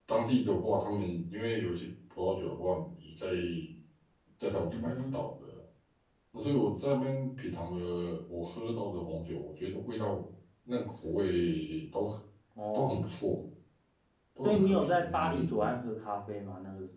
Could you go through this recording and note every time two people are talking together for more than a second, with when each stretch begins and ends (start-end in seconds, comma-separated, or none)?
14.4-15.8